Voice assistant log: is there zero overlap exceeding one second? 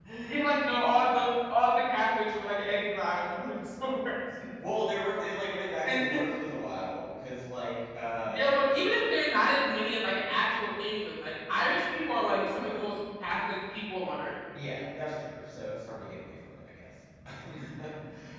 Yes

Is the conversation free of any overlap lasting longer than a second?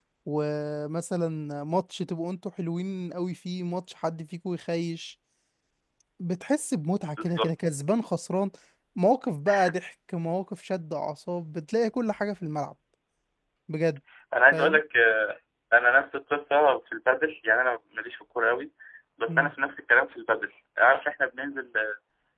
Yes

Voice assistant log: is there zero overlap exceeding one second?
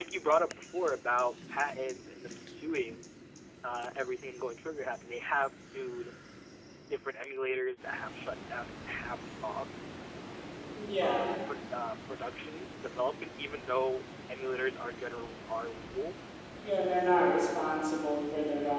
Yes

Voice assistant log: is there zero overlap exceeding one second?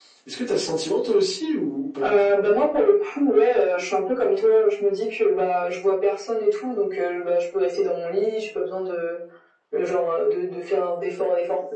Yes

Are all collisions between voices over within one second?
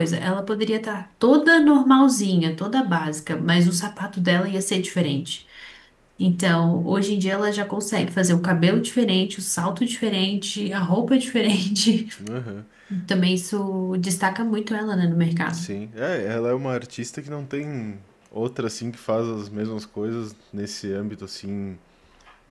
Yes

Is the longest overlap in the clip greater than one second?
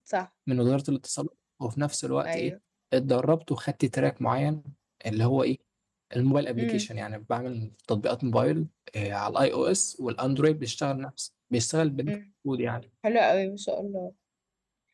No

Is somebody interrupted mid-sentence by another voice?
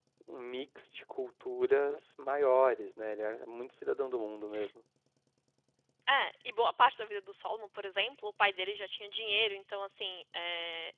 No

